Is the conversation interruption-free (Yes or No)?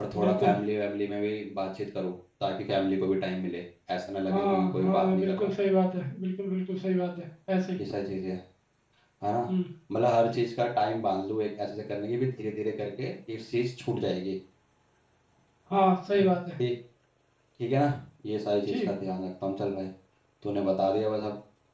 No